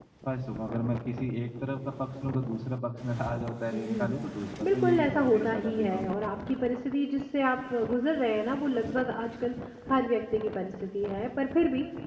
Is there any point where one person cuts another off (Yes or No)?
Yes